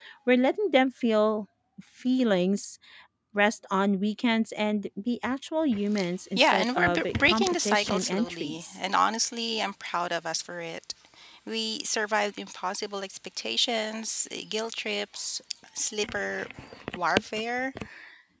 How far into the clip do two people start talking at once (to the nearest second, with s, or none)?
6 s